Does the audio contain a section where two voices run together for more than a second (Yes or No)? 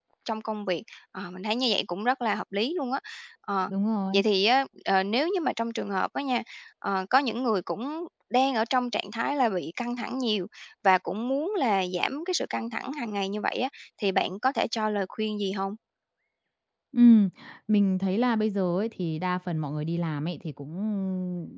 No